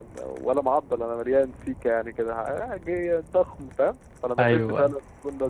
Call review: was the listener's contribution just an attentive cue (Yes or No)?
Yes